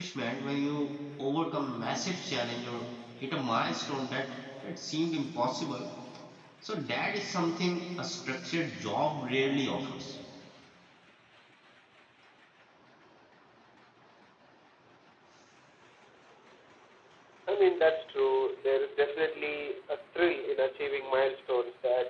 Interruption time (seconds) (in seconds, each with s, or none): none